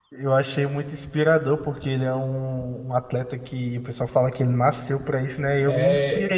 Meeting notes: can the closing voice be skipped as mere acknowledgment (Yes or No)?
Yes